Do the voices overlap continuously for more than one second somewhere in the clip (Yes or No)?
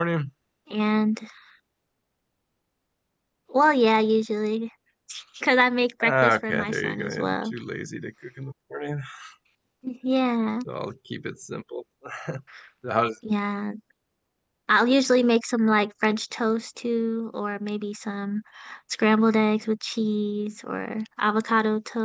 Yes